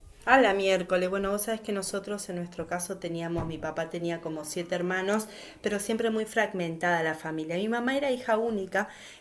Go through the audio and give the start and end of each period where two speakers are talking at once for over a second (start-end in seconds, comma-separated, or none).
none